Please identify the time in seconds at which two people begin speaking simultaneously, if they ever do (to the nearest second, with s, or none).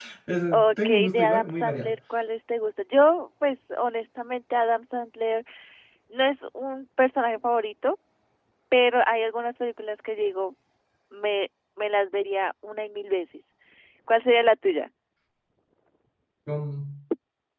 1 s